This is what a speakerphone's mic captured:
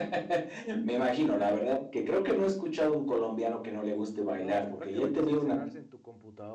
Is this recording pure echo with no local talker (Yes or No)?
No